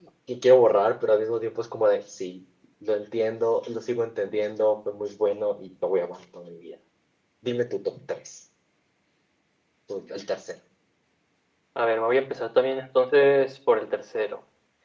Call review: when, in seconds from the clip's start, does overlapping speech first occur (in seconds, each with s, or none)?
none